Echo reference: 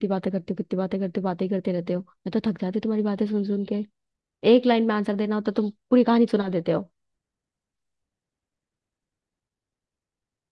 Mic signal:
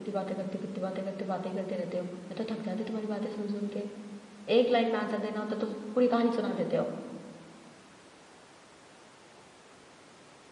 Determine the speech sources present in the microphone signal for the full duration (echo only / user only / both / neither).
echo only